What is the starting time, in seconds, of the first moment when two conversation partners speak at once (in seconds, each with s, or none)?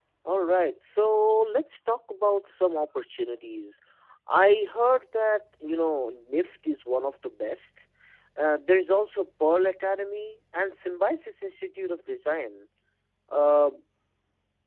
none